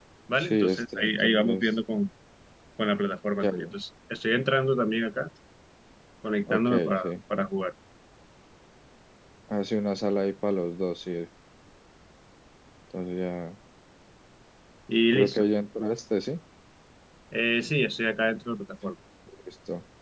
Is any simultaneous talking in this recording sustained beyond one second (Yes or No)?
Yes